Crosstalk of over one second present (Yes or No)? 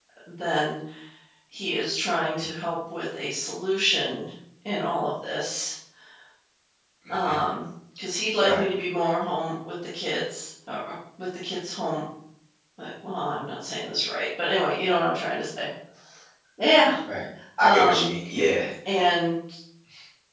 No